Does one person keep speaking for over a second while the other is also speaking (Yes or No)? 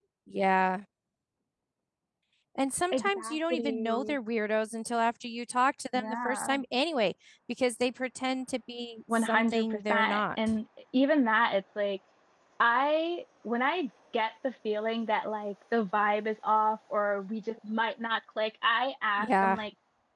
Yes